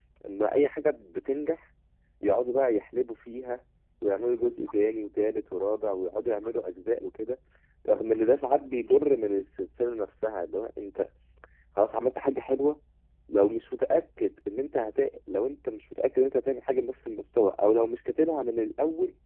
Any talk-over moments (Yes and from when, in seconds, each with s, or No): No